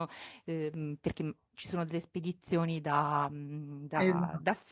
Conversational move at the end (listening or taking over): listening